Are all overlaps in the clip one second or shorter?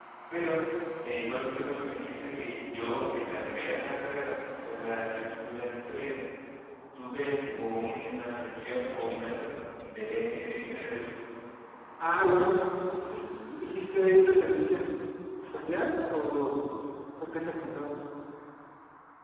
Yes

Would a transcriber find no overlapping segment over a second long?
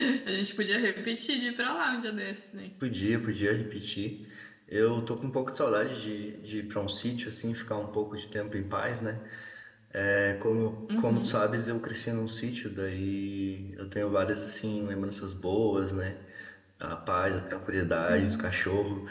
Yes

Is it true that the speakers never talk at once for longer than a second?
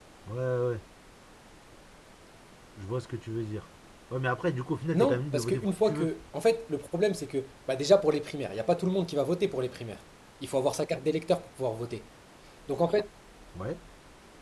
No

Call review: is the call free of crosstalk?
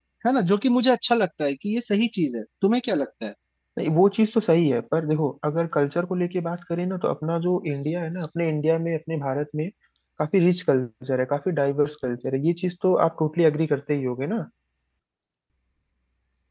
Yes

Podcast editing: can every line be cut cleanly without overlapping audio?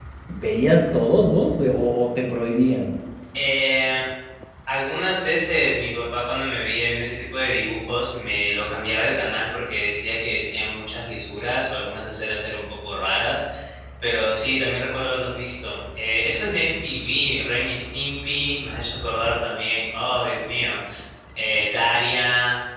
Yes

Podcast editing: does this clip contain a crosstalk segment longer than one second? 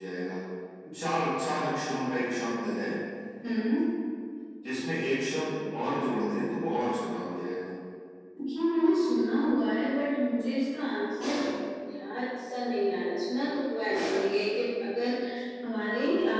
No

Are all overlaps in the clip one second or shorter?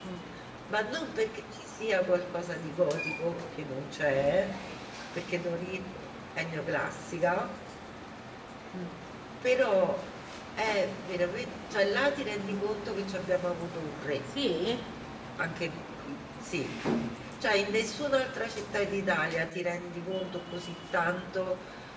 Yes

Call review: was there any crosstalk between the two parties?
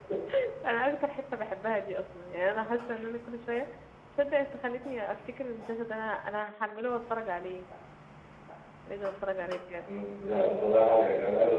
No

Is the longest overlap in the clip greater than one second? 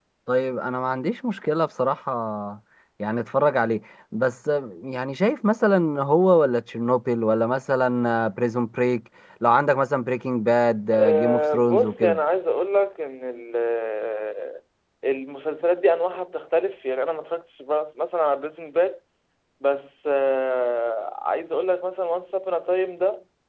Yes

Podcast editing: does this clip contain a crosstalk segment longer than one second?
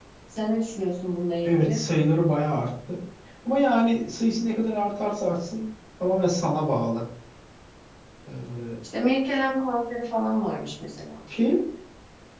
No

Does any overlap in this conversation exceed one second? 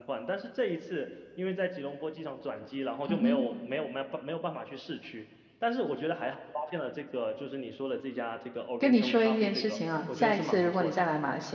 Yes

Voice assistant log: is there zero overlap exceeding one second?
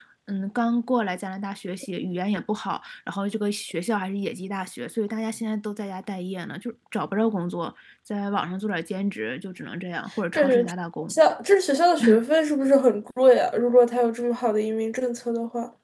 Yes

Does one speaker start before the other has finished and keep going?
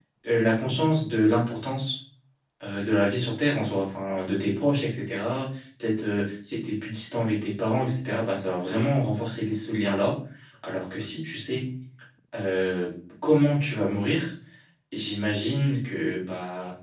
No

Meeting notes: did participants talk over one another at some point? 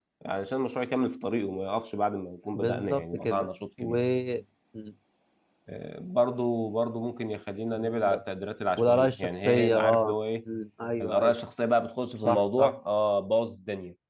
Yes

